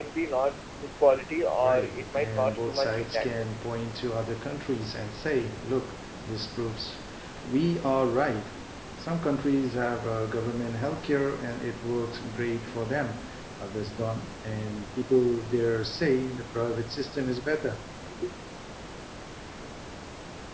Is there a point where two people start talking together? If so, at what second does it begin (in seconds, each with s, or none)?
1.6 s